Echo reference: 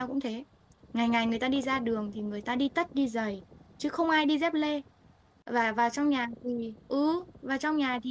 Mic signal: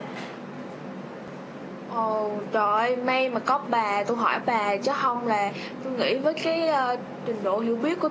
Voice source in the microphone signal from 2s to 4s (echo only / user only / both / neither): user only